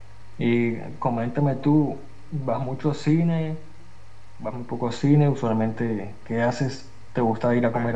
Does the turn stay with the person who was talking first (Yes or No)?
Yes